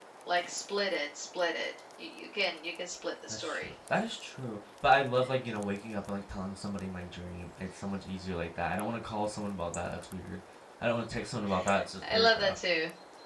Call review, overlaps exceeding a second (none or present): none